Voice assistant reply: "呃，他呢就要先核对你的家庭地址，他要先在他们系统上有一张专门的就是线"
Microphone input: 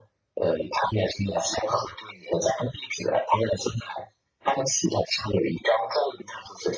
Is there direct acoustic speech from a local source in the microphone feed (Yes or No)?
No